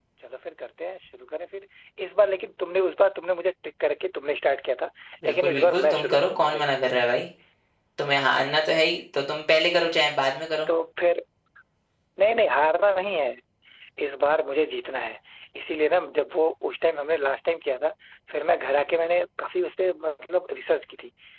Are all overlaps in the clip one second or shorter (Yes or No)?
No